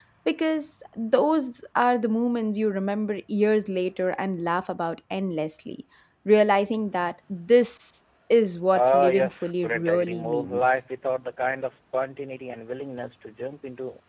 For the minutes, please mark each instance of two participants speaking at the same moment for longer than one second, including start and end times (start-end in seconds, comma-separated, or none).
8.7-10.7